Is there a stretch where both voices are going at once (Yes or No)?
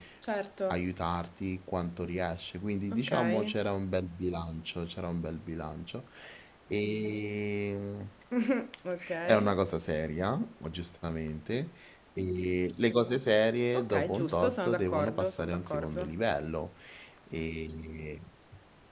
Yes